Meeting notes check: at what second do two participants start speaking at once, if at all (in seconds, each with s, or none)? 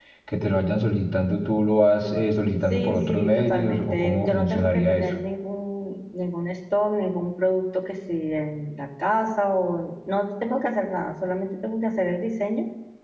2.7 s